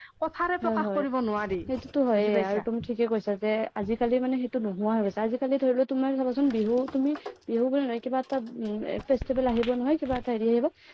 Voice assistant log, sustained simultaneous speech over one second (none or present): none